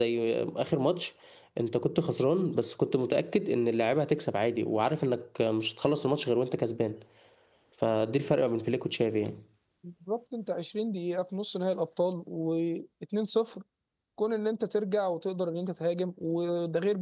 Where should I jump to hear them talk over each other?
none

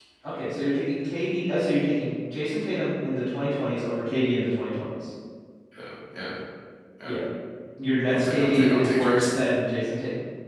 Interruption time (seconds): 8.1 s

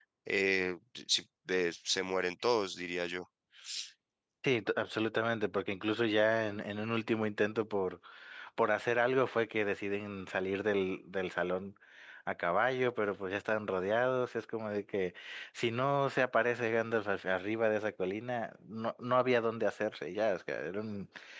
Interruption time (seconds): none

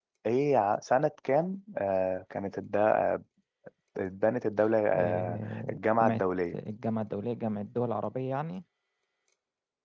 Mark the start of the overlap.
4.9 s

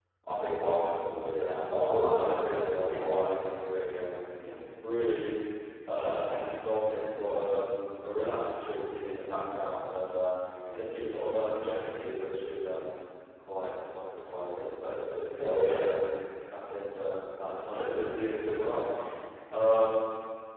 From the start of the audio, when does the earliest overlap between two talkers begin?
1.2 s

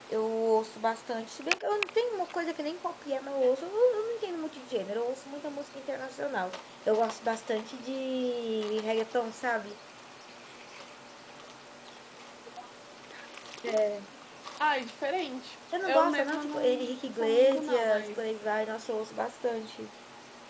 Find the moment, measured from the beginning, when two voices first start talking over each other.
15.7 s

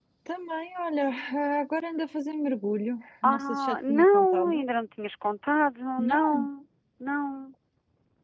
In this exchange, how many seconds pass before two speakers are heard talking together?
3.2 s

